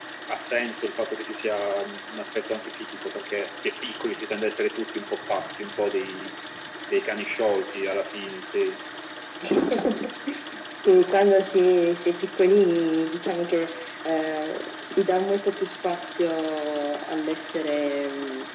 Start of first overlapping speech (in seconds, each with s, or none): none